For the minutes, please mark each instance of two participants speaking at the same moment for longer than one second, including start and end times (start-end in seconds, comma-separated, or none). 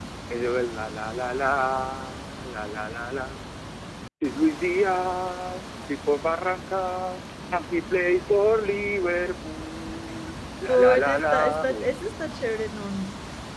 10.7-12.3